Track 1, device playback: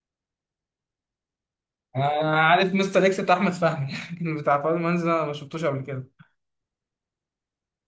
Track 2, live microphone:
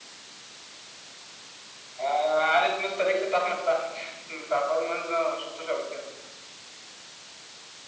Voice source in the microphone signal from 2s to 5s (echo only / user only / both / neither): echo only